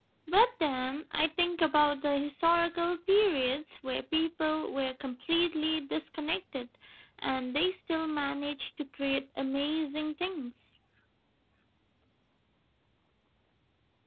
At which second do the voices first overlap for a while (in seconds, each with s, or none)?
none